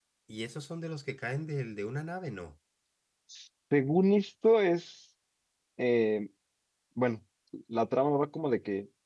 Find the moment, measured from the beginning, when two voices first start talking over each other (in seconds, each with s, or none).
none